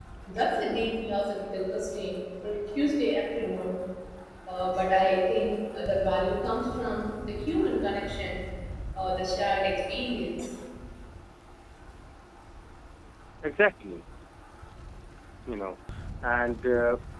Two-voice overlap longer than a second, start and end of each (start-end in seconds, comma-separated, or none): none